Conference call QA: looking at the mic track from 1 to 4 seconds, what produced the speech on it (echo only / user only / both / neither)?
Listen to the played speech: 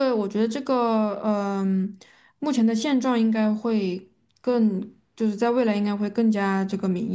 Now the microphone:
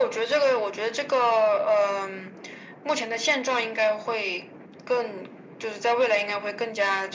echo only